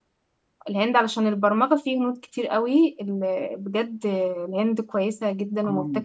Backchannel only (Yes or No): No